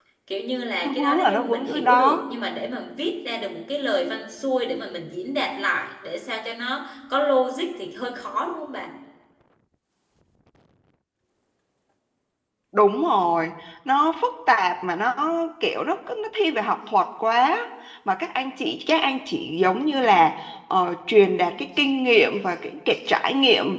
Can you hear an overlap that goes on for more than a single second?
Yes, from 0.8 s

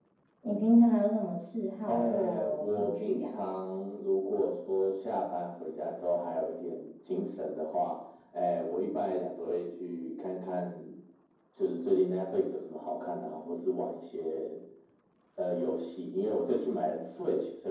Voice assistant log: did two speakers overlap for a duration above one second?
Yes, from 1.9 s

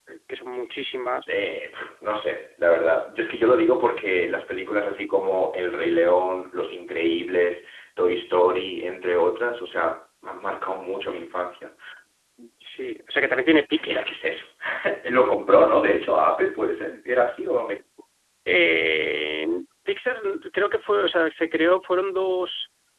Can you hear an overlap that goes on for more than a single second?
No

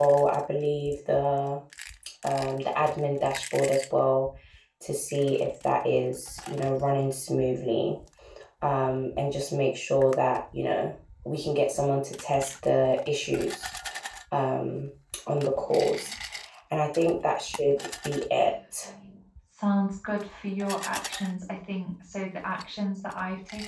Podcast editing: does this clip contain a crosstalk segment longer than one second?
No

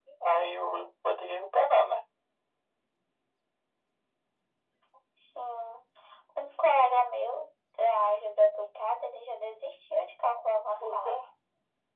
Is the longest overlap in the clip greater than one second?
No

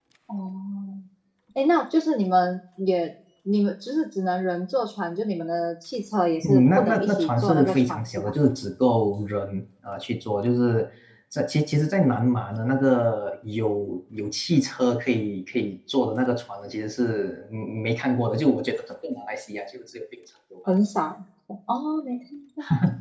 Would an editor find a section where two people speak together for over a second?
Yes, from 6.4 s

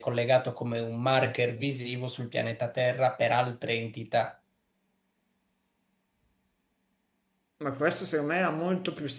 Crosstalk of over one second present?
No

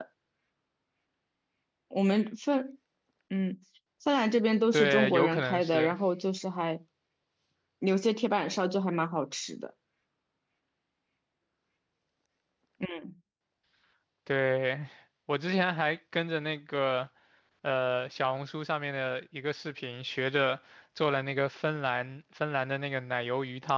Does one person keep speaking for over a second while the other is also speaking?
Yes, from 4.7 s

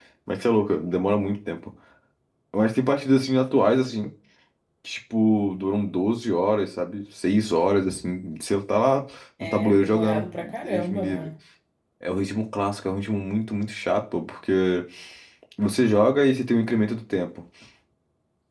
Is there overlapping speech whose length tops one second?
Yes, from 9.4 s

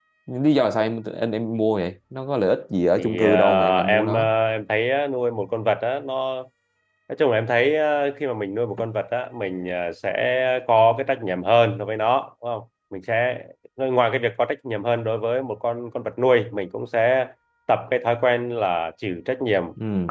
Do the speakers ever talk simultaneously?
Yes, from 3.0 s

